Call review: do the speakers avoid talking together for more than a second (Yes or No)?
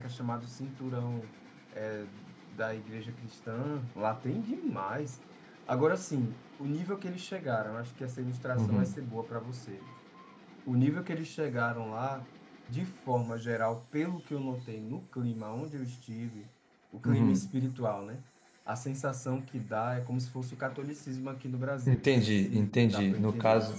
No